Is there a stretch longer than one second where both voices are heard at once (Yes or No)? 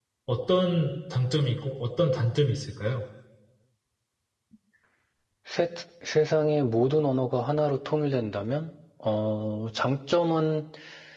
No